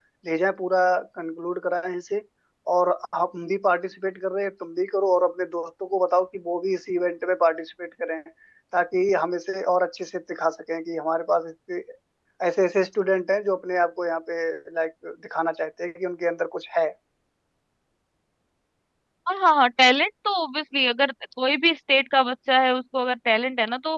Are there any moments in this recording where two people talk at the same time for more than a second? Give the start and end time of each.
none

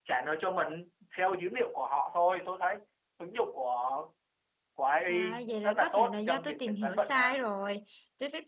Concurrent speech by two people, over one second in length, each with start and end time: 5.1-7.4

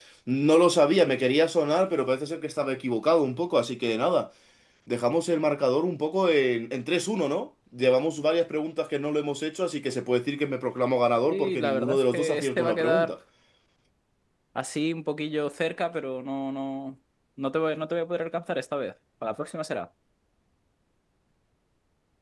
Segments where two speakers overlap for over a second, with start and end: 11.3-13.1

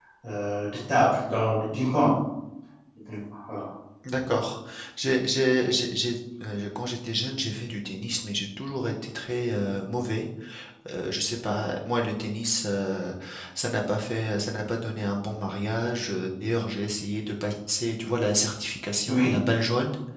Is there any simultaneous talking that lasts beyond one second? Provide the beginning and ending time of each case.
none

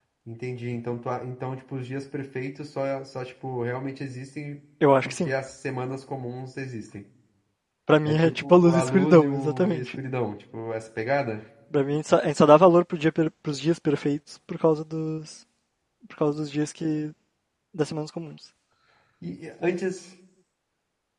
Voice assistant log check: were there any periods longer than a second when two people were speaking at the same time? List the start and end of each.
8.1-9.9

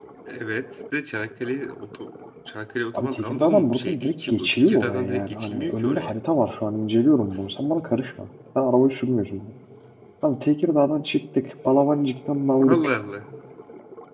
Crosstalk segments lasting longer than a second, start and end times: 2.9-6.2

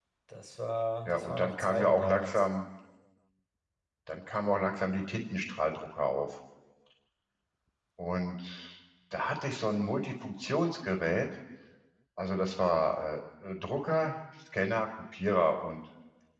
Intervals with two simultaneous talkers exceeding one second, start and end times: 1.1-2.5

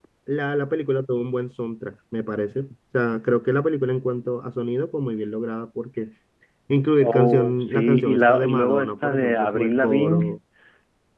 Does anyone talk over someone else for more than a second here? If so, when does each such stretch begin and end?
7.0-10.4

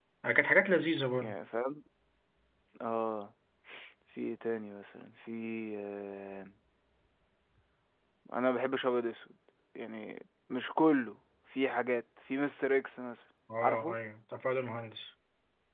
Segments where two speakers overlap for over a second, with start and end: none

